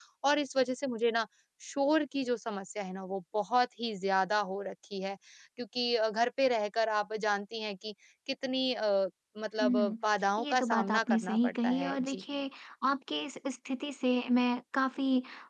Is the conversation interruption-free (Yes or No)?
No